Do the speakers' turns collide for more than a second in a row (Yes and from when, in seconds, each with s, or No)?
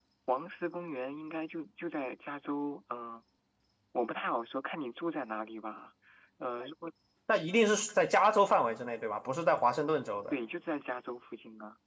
No